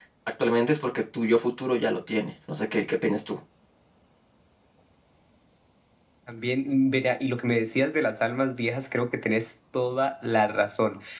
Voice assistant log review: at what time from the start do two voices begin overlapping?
none

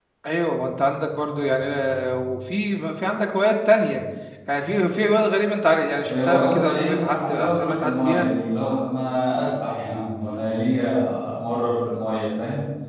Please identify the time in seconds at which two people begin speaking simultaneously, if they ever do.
6.1 s

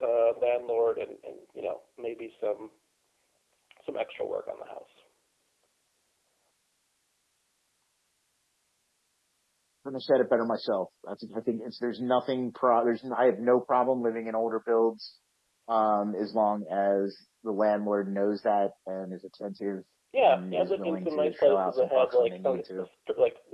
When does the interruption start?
20.2 s

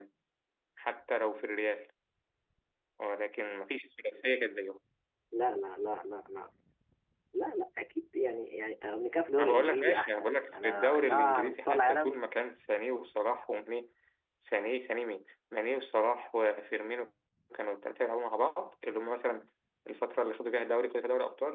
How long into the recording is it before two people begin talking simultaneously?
9.4 s

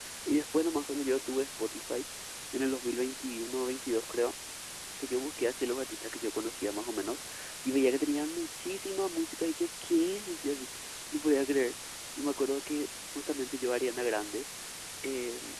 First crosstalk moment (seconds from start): none

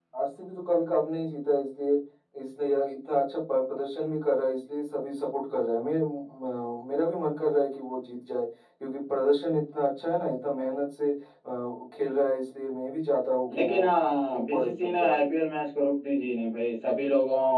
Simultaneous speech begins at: 13.5 s

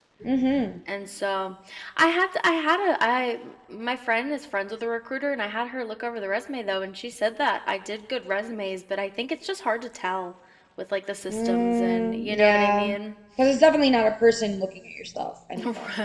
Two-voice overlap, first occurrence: 11.3 s

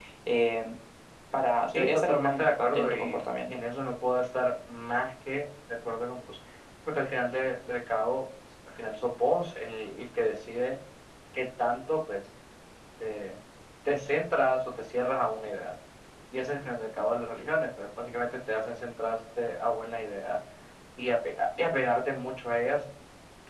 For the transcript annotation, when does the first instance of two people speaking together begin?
1.7 s

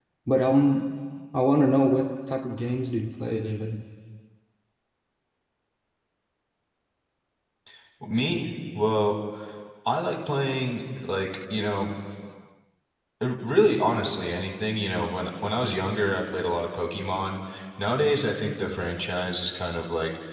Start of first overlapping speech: none

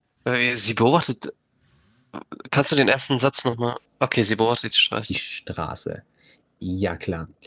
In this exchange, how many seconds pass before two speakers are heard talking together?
none

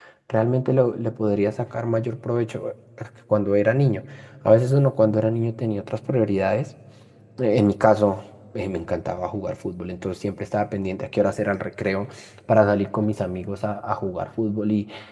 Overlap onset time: none

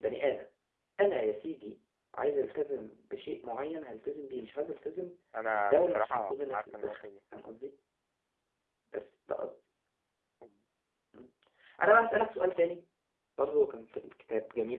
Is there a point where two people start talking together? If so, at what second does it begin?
5.3 s

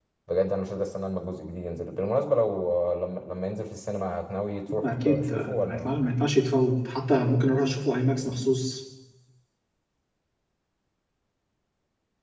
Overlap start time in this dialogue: 4.8 s

